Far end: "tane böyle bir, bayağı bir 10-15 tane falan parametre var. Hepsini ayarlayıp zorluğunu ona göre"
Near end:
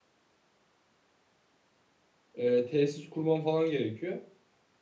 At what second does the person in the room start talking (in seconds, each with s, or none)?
2.3 s